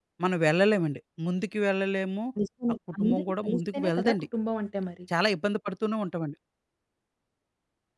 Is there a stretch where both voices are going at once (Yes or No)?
Yes